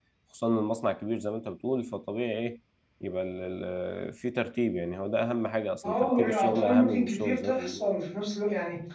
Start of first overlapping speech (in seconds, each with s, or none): 5.8 s